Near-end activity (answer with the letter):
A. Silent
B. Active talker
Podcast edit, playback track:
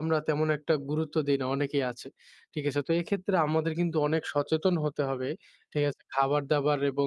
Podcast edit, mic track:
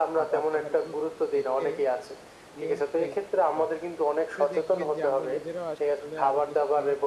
B